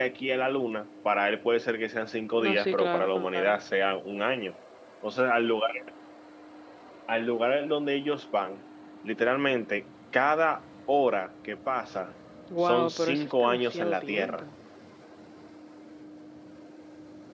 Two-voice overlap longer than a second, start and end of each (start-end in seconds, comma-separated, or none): 2.4-3.6, 12.6-14.4